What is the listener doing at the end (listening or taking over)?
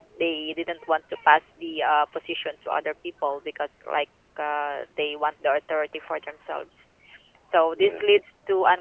listening